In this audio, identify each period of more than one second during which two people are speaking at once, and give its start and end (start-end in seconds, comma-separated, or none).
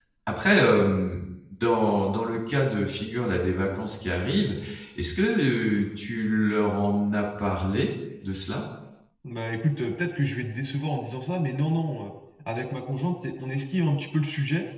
none